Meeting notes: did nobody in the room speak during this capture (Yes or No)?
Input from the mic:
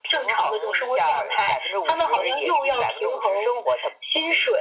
Yes